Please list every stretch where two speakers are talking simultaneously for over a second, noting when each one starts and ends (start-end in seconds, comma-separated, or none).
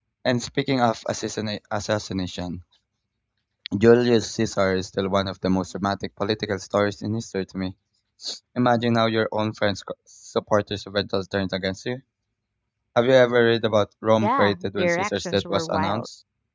14.2-16.1